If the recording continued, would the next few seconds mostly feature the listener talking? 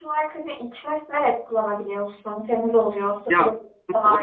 Yes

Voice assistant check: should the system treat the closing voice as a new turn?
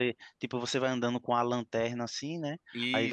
No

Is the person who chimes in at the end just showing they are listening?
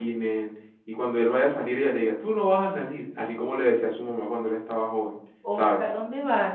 No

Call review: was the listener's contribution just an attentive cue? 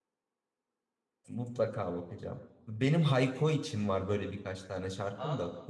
Yes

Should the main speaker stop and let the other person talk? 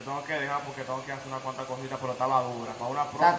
Yes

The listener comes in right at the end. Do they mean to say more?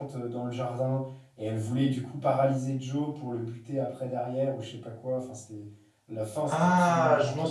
Yes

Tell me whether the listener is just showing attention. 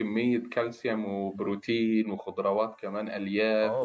No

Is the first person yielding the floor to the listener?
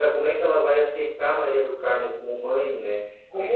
No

